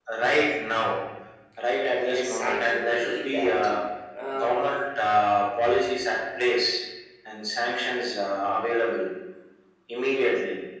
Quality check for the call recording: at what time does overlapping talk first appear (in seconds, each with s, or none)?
1.9 s